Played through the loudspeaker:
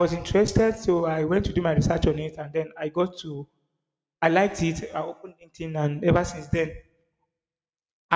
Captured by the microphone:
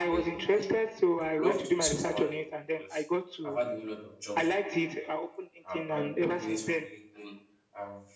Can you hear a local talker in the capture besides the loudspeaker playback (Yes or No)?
Yes